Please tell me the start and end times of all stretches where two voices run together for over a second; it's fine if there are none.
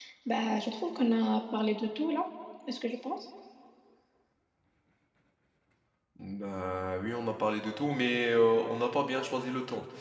none

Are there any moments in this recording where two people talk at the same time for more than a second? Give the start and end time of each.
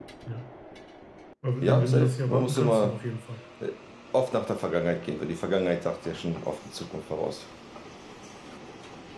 1.6-3.0

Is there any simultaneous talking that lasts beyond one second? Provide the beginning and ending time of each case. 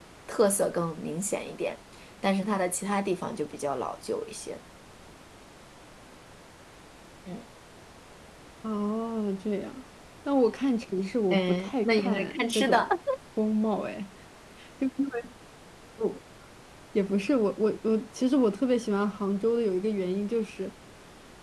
11.3-12.9

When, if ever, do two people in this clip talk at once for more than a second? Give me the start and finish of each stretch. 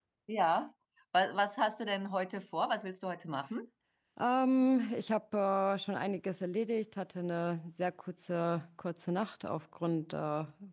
none

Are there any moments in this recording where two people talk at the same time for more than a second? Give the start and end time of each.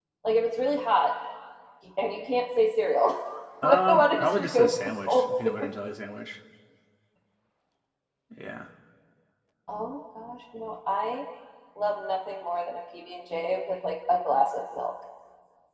3.6-5.7

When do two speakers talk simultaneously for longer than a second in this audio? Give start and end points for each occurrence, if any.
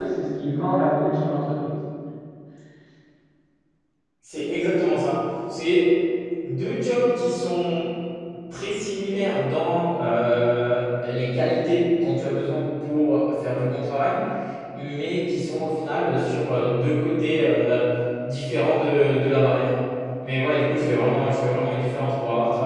none

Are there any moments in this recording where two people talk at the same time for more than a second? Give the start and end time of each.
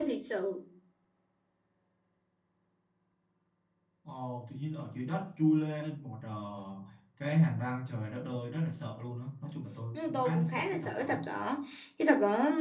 9.9-11.3

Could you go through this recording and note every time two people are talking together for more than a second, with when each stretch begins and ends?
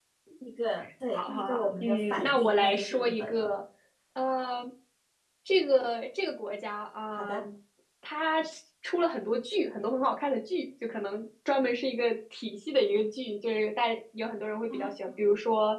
1.1-3.5

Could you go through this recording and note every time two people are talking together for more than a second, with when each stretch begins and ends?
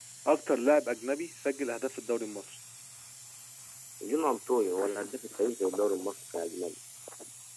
none

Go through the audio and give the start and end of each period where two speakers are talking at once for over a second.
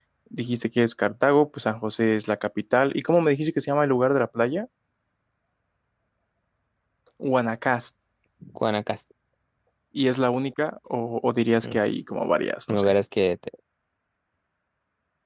none

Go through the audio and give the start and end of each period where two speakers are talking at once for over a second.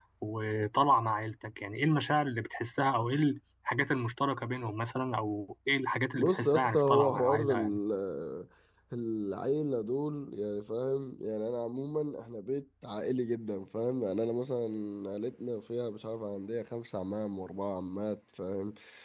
6.2-7.8

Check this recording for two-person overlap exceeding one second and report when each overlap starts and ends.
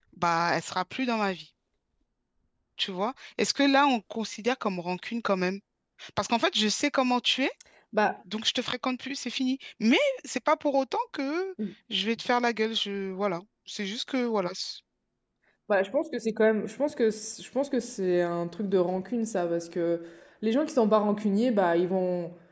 none

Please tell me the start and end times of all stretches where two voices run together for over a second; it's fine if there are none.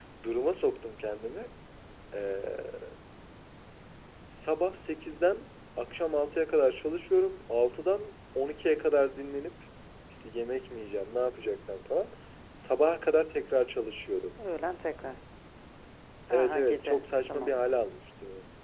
16.3-17.6

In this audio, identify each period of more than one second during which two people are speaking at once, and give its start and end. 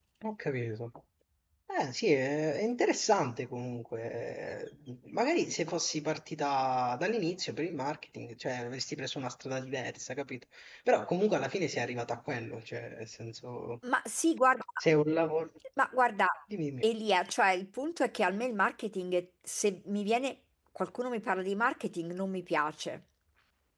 none

